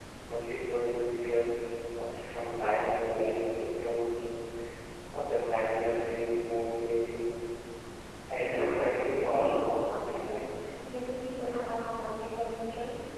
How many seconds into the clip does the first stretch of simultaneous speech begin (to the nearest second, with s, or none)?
8 s